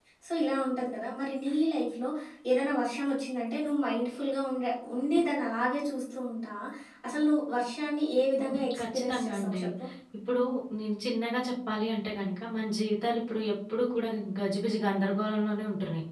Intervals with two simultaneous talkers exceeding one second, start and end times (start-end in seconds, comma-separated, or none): 8.4-9.6